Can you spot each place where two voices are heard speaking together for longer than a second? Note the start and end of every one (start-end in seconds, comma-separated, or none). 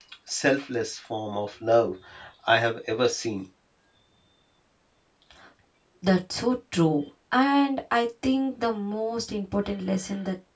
none